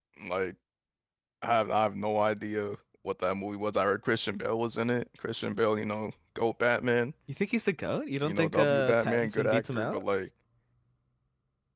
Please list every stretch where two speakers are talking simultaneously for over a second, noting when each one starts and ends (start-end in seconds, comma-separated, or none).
8.2-10.0